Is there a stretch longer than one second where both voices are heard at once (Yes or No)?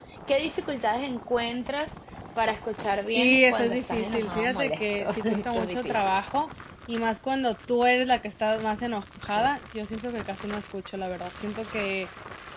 Yes